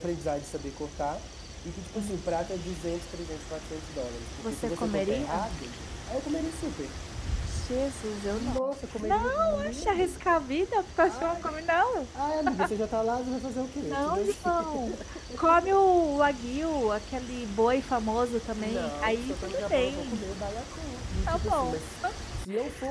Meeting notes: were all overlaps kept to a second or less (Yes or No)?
No